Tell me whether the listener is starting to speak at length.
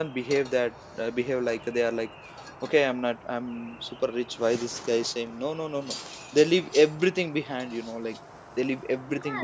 Yes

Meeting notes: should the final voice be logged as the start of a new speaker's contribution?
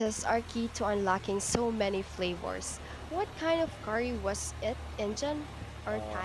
Yes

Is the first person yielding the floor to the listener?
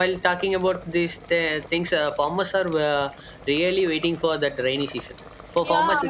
No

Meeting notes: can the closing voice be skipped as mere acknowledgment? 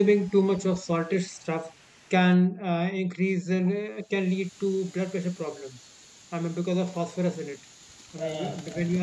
No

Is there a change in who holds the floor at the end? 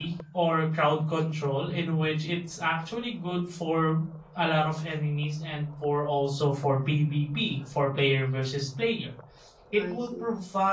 No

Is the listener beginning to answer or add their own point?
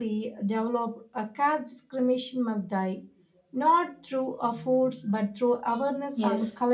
Yes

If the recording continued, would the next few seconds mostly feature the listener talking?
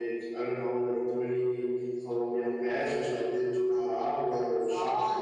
Yes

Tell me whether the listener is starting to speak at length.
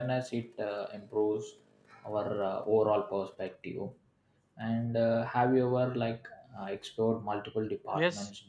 Yes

